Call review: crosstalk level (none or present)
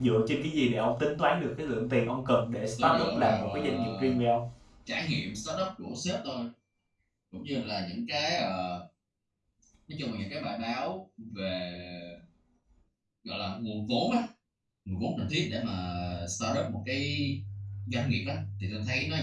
present